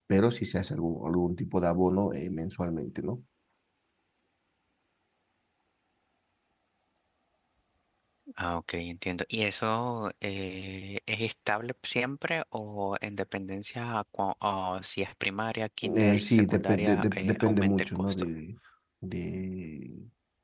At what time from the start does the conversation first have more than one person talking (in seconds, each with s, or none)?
15.8 s